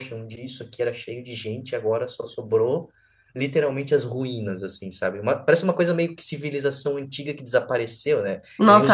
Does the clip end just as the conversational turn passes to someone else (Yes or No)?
Yes